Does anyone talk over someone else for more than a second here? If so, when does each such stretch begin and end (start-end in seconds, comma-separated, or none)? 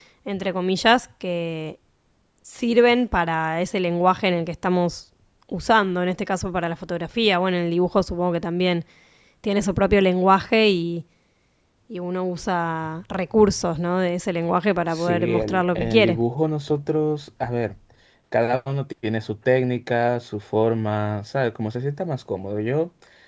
14.9-16.2